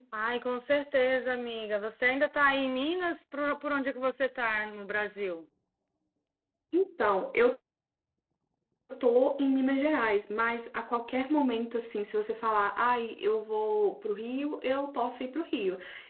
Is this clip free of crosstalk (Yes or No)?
Yes